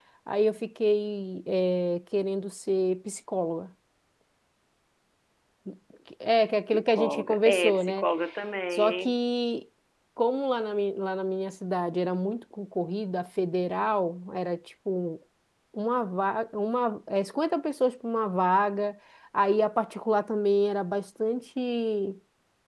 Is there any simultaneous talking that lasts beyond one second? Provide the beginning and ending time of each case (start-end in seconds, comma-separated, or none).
6.7-8.1